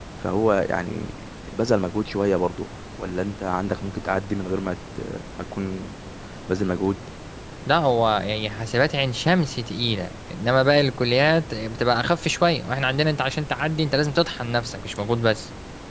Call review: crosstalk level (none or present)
none